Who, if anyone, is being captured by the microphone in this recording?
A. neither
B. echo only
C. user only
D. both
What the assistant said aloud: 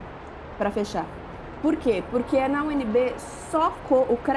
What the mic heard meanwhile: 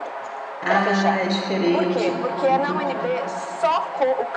D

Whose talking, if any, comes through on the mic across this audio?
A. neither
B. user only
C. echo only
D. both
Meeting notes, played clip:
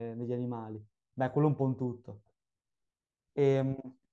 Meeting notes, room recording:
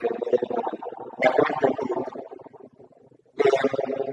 C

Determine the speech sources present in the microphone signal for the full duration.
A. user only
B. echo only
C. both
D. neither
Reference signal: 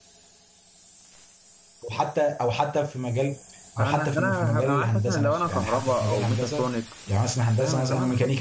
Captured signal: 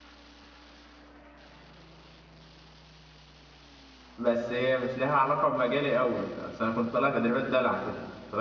A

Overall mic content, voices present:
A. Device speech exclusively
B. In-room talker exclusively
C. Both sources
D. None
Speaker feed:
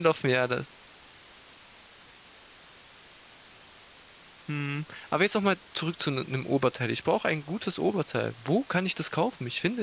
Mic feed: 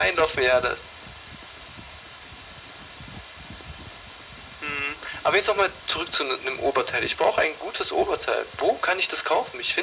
A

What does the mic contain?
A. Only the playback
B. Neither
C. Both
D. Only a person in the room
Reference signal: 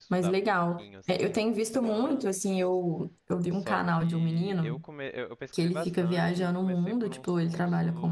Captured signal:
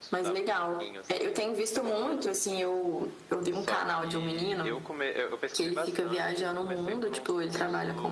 A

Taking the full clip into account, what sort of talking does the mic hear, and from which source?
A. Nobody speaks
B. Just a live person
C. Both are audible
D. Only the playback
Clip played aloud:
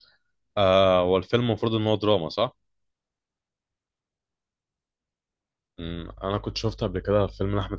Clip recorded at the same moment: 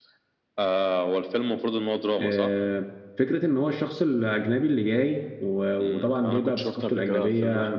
C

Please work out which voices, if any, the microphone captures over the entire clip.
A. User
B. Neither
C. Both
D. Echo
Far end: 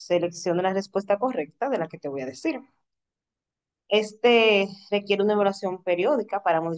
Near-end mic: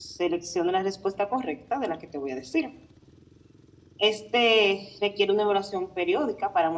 D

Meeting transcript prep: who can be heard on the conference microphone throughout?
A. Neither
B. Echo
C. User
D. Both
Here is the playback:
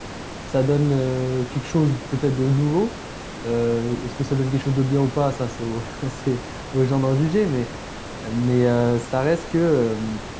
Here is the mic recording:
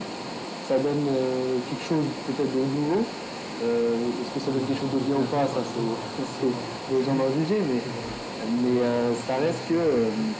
D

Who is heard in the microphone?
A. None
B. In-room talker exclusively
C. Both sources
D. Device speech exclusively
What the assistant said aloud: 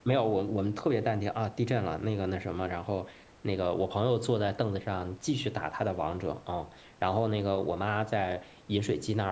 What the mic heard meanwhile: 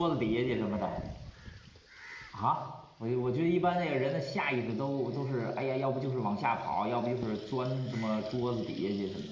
B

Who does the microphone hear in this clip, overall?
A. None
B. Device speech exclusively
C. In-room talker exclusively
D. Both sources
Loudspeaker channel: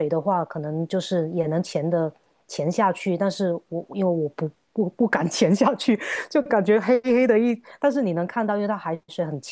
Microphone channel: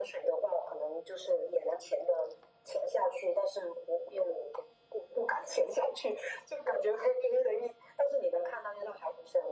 B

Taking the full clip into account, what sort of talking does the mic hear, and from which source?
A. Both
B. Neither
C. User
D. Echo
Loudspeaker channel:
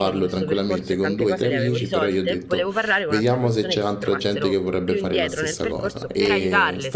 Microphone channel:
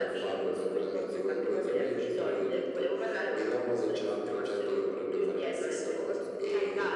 D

